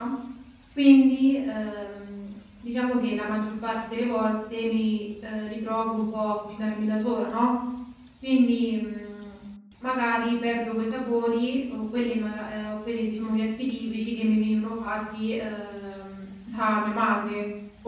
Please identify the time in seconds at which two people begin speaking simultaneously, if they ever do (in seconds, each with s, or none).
none